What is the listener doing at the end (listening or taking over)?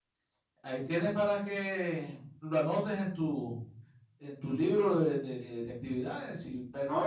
taking over